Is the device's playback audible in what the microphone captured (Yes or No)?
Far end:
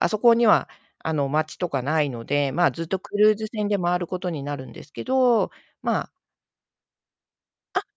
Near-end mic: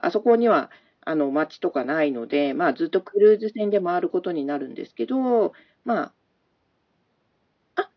Yes